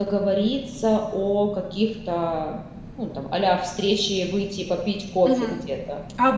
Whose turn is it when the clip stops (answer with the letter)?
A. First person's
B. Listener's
B